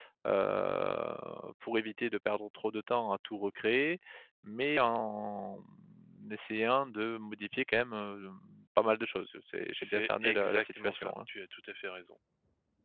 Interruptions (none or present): present